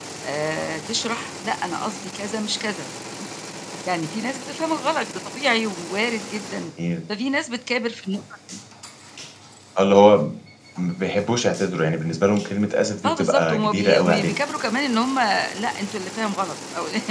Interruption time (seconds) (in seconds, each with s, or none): 13.0 s